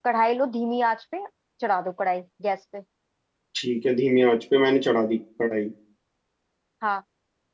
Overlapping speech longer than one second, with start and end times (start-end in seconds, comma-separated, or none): none